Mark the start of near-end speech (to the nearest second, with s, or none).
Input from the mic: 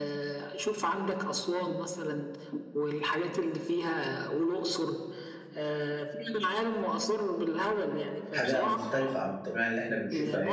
8 s